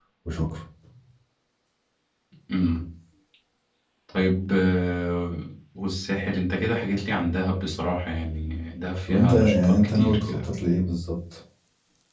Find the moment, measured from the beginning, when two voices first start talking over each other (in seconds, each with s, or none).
9.1 s